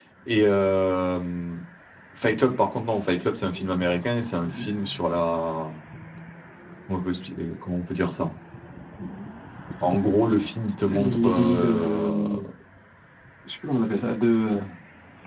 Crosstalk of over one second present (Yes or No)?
Yes